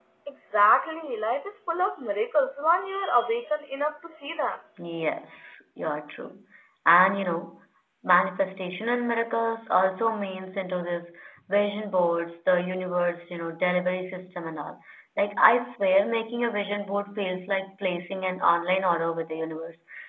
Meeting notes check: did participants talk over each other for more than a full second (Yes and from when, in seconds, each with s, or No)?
No